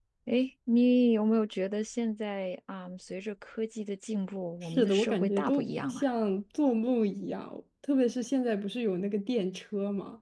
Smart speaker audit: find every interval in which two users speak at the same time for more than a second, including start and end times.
4.6-6.0

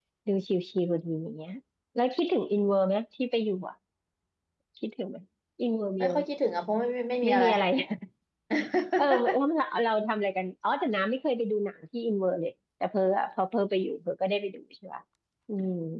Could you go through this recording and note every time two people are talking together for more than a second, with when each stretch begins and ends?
none

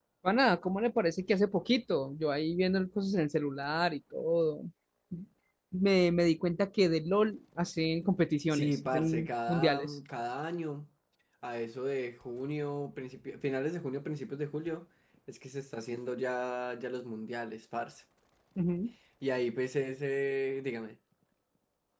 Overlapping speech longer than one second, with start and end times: 8.5-9.9

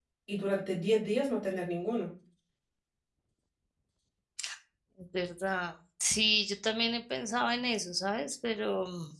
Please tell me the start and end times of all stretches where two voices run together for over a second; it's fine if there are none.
none

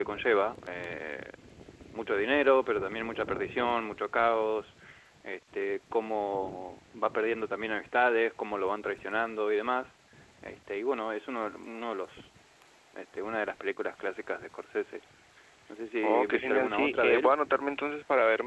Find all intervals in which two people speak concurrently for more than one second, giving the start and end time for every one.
16.0-17.3

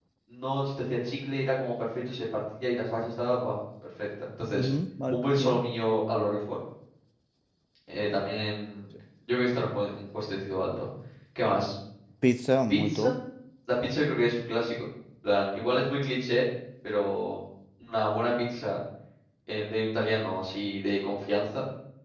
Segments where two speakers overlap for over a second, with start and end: none

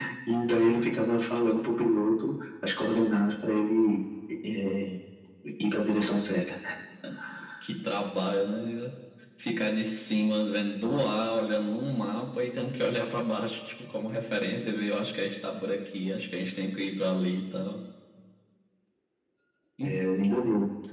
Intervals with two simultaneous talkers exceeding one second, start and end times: none

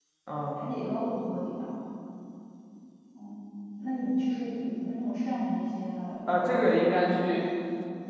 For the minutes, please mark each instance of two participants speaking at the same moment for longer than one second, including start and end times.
6.3-7.5

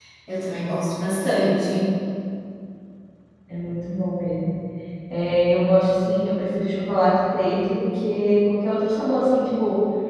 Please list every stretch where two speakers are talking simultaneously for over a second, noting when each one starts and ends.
none

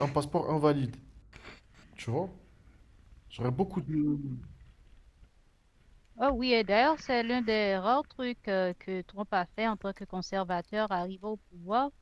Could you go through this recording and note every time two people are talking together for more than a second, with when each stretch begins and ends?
none

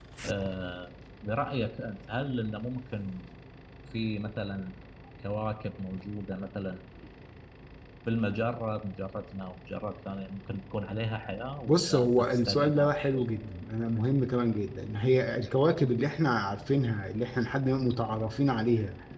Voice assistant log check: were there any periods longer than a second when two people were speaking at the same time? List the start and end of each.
11.7-13.2

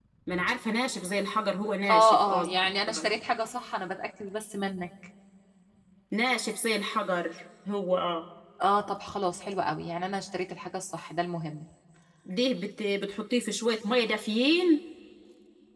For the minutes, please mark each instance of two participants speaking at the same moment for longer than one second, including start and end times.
1.9-3.1

